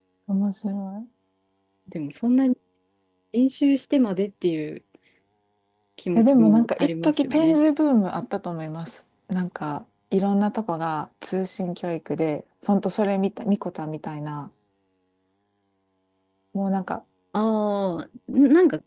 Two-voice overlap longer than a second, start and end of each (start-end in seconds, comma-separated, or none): 6.2-7.6